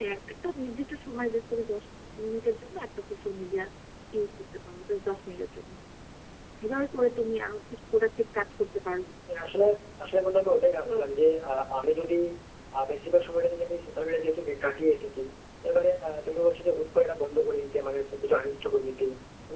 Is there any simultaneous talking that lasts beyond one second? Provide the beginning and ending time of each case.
none

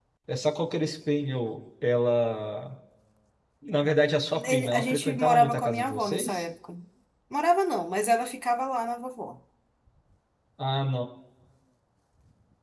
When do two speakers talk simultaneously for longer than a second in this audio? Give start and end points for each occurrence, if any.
4.3-6.5

